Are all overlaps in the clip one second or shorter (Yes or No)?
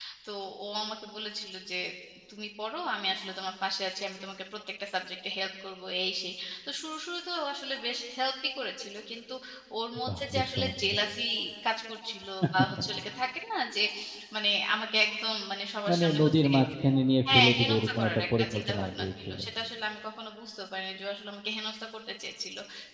No